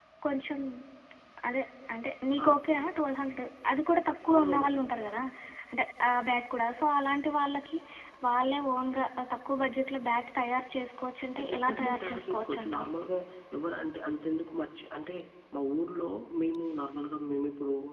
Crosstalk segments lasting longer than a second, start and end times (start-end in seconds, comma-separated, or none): 11.5-12.9